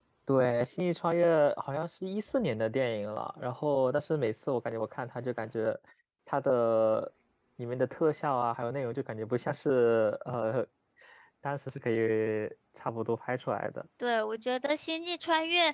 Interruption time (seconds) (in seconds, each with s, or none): none